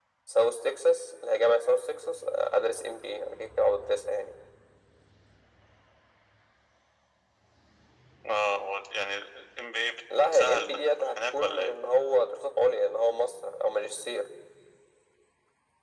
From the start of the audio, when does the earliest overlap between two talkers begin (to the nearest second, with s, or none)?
10 s